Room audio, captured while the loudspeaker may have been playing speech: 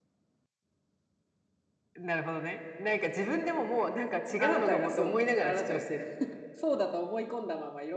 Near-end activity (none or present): present